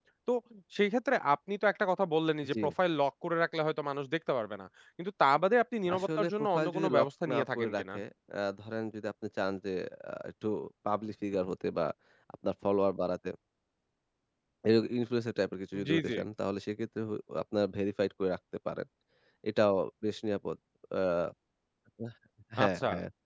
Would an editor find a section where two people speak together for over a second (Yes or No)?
Yes